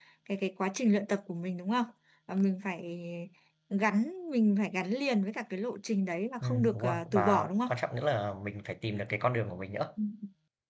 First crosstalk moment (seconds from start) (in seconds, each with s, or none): 6.4 s